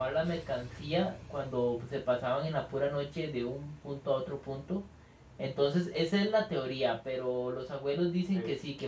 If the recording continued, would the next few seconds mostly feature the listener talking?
No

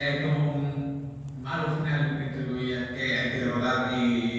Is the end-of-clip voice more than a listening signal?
No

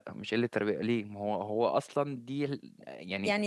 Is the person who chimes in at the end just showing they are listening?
No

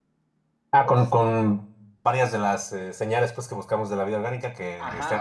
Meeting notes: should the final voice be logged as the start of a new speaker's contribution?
Yes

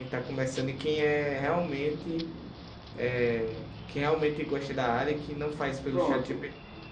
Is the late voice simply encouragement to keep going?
No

